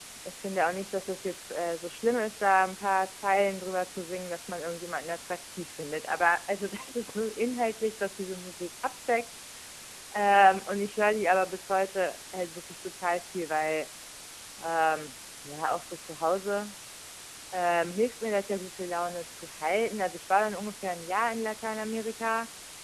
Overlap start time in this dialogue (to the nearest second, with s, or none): none